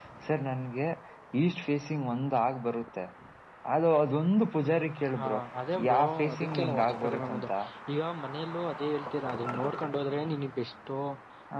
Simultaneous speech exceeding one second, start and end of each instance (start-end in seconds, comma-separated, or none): 5.9-7.5